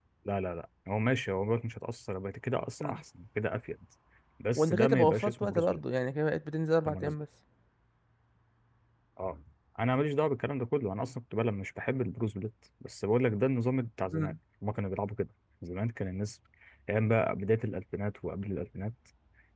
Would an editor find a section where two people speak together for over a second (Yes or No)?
Yes